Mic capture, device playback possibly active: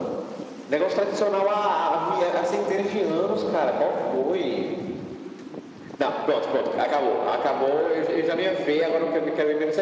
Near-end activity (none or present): none